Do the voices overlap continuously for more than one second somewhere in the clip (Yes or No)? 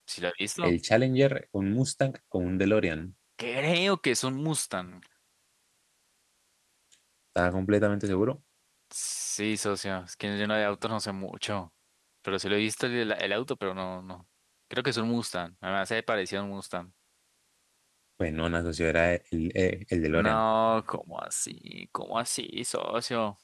No